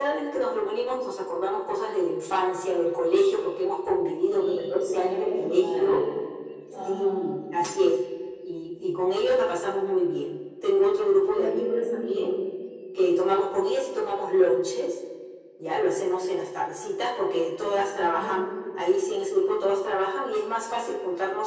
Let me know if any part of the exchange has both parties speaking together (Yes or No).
Yes